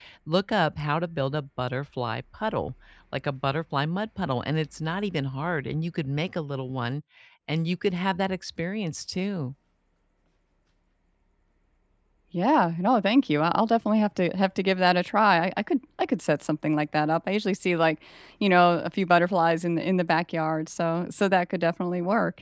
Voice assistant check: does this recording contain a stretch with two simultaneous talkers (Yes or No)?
No